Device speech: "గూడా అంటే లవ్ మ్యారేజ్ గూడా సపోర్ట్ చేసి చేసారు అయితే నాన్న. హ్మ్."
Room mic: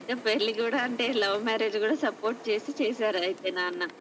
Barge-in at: none

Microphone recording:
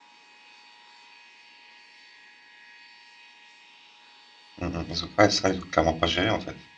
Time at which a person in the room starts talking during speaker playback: 4.6 s

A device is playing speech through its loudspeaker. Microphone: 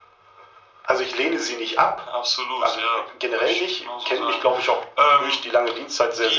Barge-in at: none

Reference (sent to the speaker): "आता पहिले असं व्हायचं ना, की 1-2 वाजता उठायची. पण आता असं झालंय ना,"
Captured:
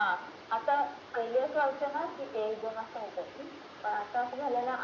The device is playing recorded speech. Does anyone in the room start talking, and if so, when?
none

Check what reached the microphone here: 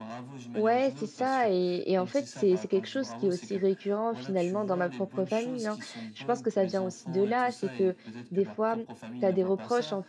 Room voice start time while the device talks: 0.5 s

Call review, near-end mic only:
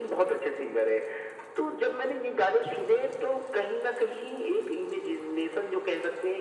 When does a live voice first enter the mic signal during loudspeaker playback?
none

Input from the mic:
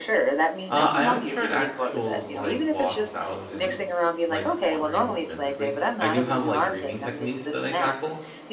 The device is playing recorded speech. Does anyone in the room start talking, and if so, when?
0.7 s

